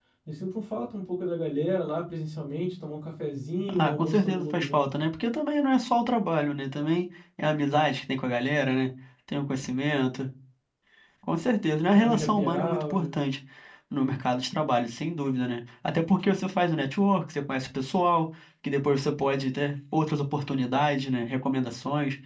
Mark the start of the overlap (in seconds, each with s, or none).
3.7 s